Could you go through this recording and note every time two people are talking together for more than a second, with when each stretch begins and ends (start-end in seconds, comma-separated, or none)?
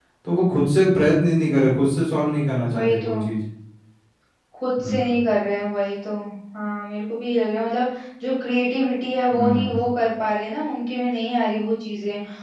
none